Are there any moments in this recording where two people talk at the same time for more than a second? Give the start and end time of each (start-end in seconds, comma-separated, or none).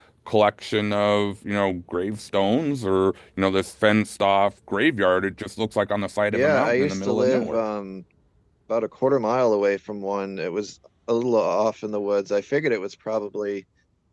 6.3-7.6